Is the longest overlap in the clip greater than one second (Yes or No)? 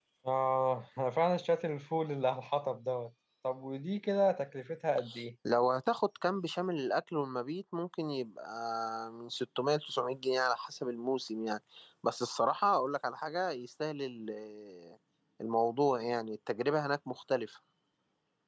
No